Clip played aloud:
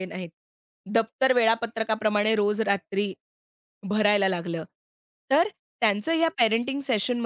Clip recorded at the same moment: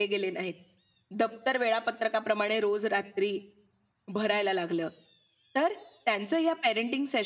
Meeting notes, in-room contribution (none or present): none